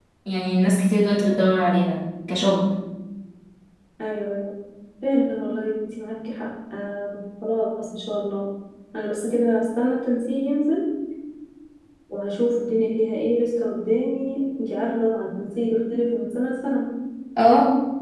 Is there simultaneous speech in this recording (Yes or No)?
No